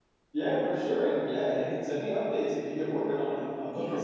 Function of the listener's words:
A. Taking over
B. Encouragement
A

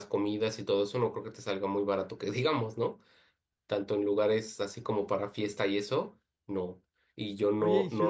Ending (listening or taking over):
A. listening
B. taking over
B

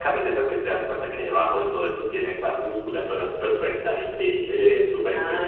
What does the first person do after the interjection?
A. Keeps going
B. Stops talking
B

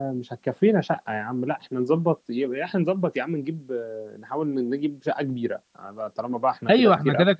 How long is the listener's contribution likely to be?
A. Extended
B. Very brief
A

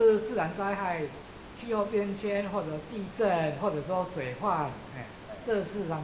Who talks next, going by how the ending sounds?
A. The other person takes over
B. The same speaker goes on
B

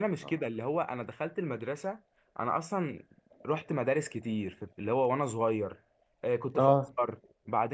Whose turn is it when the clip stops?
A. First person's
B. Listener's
A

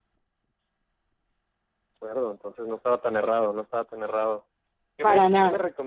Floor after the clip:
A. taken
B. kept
B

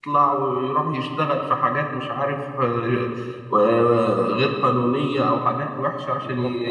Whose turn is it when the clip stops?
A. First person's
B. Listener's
A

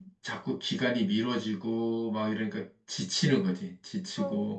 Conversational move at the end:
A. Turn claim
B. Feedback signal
A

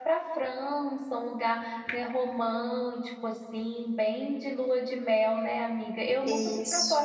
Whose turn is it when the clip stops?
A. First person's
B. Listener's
A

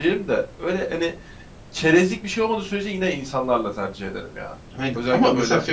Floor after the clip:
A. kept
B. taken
B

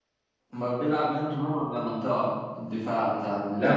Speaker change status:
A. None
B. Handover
B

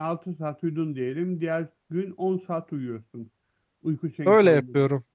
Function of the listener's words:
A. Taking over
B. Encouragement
A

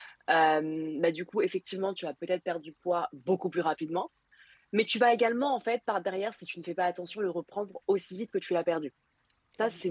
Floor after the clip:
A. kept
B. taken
A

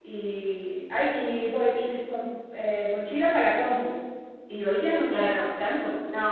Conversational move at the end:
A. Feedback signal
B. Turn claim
B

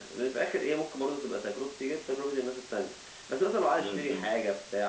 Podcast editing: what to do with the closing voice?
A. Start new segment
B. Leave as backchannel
B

